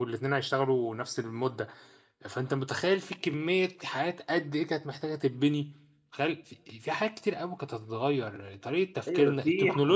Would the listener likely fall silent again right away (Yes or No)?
No